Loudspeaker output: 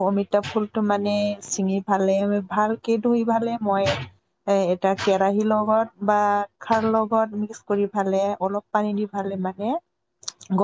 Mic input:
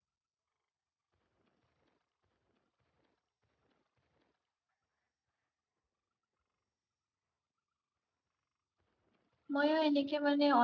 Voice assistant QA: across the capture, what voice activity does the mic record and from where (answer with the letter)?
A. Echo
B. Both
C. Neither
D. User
D